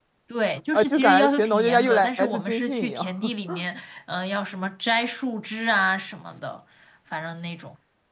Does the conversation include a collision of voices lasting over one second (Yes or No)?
Yes